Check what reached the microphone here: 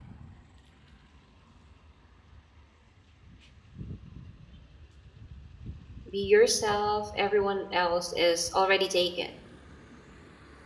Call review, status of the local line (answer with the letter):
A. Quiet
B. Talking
B